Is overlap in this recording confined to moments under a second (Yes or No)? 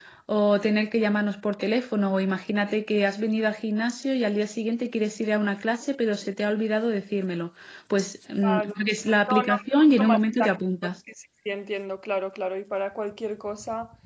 No